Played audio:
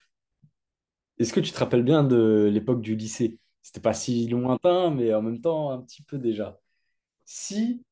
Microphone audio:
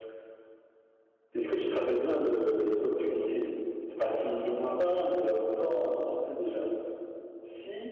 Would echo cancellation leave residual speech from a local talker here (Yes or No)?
No